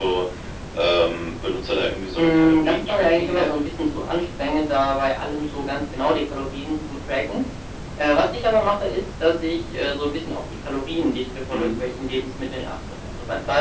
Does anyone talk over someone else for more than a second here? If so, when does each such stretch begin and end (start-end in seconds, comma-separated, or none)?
2.2-3.6